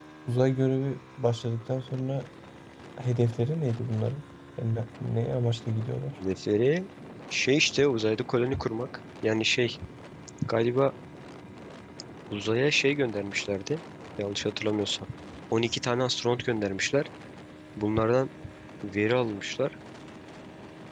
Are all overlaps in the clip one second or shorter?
Yes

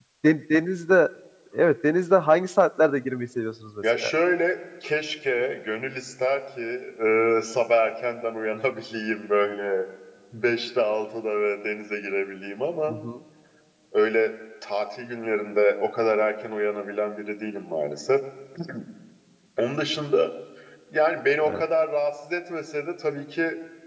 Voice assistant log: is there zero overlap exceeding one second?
Yes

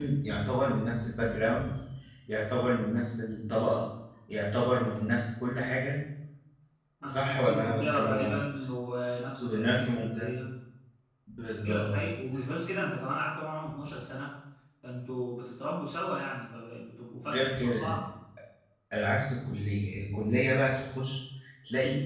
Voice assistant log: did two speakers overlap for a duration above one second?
Yes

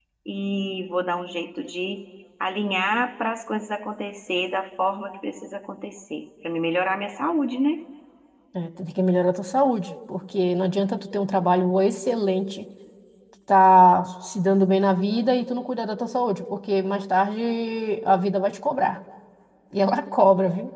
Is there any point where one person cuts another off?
No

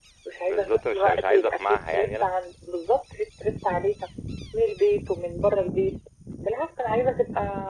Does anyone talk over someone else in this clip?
Yes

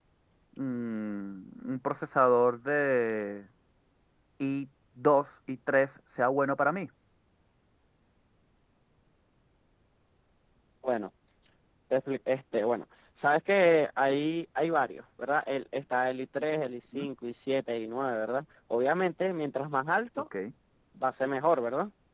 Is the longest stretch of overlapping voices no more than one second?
Yes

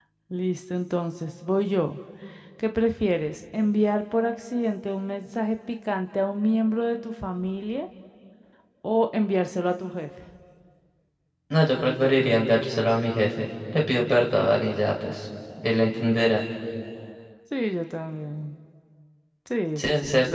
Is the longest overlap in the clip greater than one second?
No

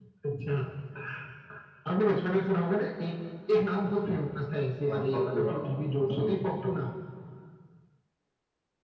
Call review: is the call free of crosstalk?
No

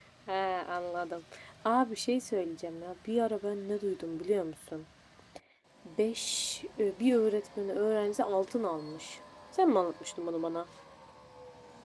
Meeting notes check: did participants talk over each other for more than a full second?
No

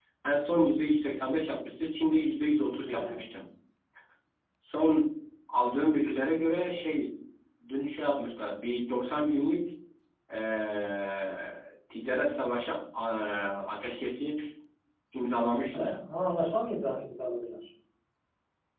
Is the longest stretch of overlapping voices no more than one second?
Yes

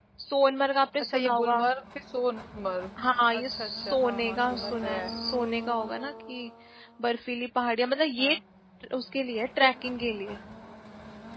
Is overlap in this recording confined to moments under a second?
No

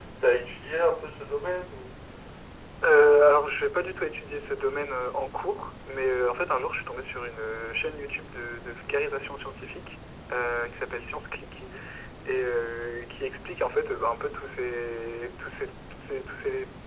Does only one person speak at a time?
Yes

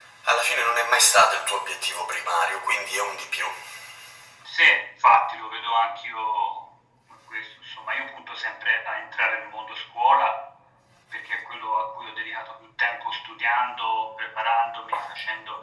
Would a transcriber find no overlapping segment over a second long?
Yes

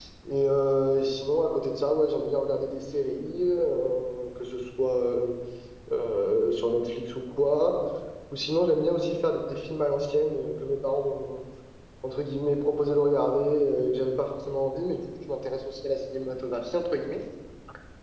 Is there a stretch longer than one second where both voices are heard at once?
No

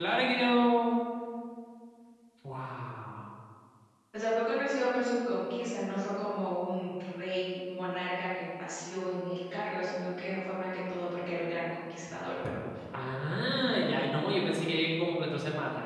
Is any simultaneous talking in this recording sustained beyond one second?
No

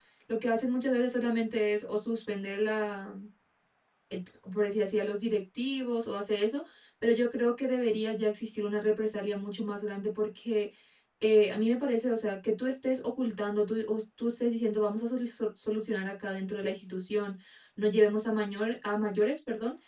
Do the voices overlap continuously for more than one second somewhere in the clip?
No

